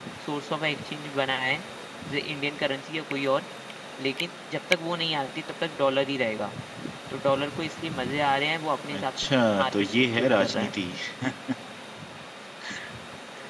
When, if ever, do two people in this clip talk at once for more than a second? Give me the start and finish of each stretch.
8.9-10.7

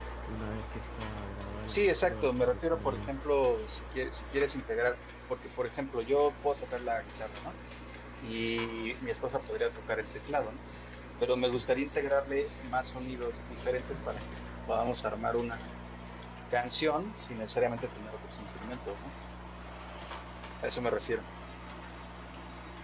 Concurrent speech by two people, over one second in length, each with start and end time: 1.7-3.1

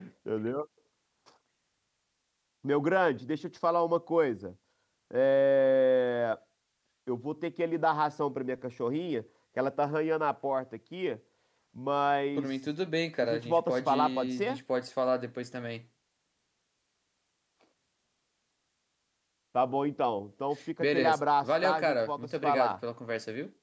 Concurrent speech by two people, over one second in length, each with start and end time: 13.2-14.6, 20.8-22.7

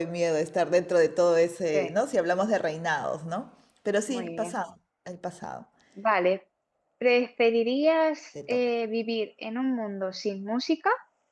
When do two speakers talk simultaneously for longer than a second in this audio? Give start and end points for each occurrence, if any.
none

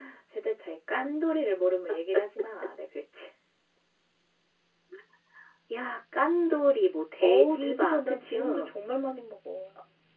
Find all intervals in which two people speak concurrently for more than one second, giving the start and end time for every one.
7.2-8.7

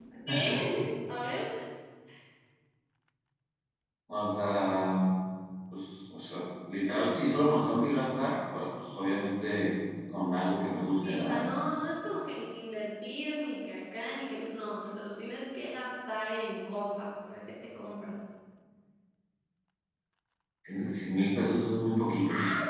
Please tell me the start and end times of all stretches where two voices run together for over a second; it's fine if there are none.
none

